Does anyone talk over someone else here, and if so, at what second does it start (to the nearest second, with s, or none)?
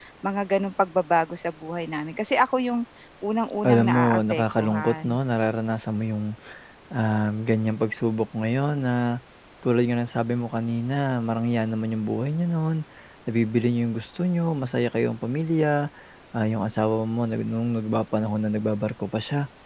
4 s